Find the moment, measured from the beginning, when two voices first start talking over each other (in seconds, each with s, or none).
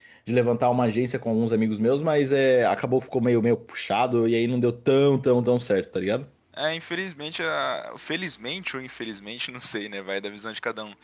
none